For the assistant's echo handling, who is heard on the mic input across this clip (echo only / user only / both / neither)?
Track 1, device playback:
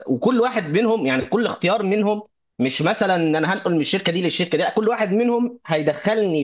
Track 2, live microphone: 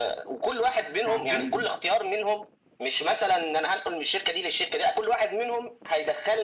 both